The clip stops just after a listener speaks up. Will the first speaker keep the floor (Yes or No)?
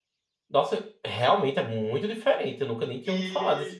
No